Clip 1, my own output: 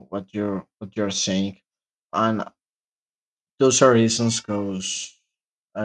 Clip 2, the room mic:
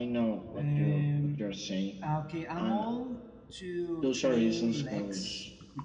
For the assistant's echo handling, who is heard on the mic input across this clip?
both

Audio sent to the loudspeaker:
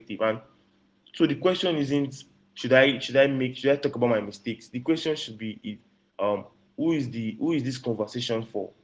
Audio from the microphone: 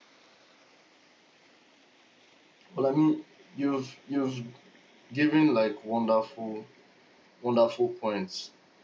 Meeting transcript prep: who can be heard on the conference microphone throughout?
user only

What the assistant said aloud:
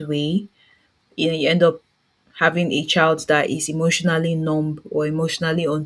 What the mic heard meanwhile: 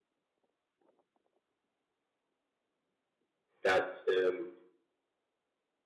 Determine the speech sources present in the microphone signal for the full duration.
user only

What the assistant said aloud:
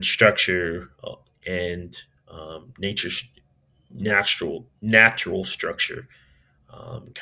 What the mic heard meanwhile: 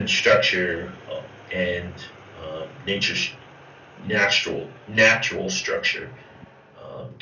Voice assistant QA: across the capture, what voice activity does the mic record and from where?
echo only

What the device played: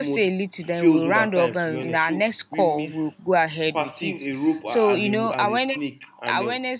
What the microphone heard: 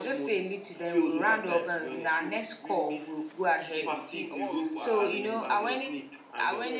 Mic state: both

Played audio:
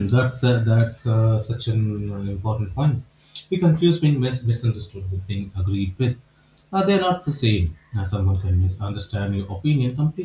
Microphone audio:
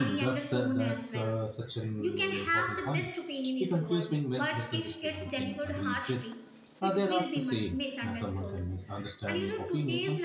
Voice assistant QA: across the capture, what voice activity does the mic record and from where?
both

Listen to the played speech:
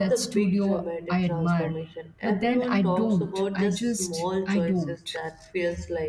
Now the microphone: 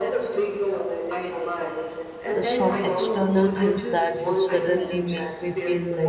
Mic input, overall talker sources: both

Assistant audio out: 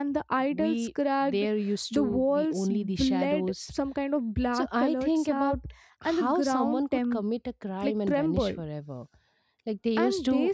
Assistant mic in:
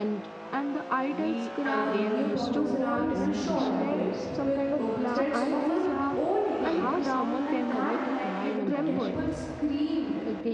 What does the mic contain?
both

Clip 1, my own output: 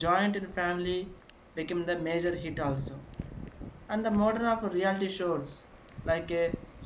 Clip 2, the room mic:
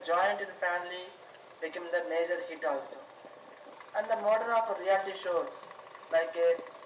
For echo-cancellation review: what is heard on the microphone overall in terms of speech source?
echo only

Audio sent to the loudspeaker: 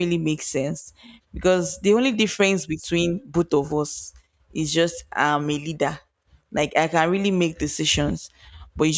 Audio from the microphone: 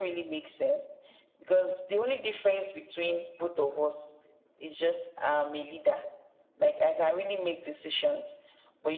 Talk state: echo only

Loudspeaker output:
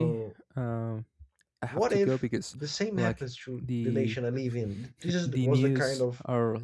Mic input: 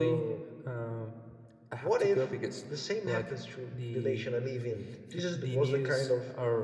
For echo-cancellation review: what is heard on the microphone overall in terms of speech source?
echo only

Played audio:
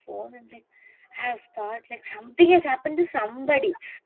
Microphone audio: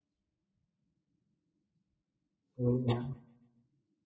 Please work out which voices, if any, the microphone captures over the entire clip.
user only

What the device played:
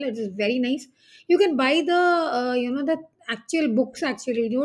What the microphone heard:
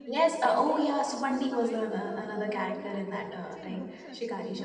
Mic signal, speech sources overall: both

